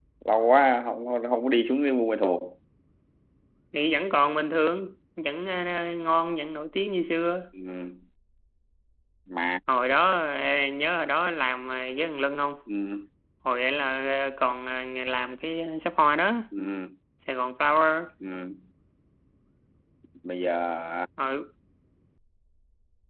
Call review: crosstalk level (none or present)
none